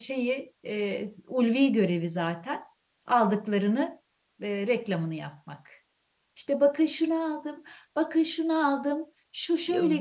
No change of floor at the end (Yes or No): No